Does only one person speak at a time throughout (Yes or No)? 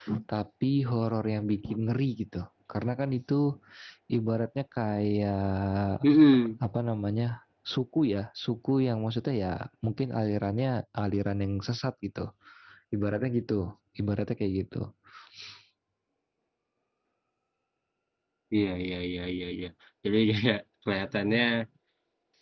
Yes